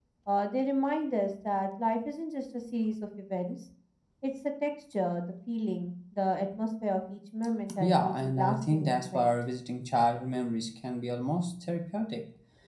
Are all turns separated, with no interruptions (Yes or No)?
No